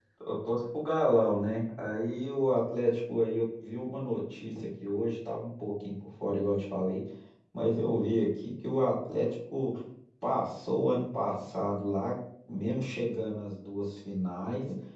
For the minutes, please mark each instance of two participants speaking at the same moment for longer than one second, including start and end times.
none

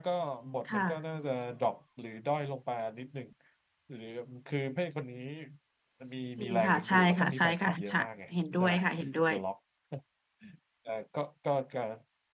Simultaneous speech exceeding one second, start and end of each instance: 6.4-8.0

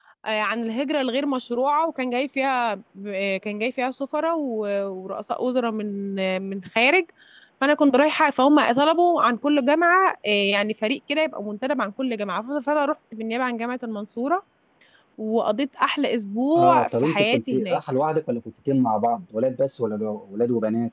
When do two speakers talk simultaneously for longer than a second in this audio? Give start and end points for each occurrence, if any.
16.6-17.8

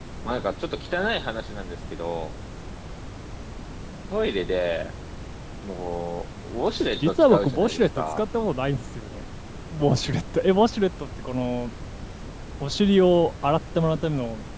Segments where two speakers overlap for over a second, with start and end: 7.0-8.2

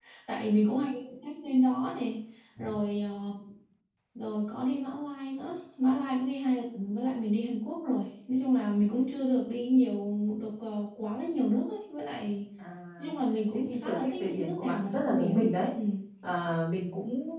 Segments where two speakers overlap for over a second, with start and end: 13.5-15.5

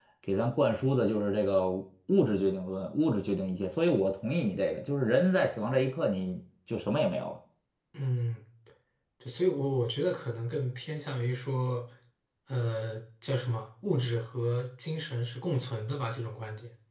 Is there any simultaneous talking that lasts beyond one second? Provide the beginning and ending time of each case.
none

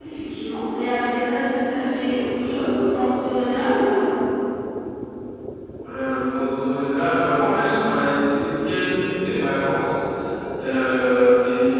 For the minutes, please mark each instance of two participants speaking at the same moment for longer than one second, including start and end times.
none

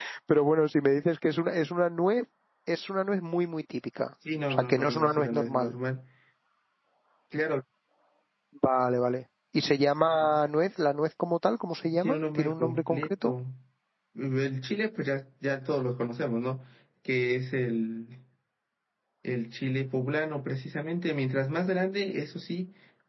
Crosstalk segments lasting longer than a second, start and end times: 4.5-5.8, 12.0-13.3

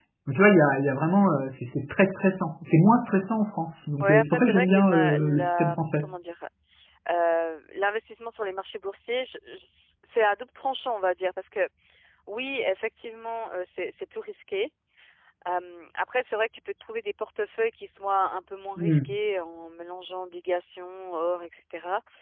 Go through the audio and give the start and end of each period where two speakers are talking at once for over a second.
4.0-6.1

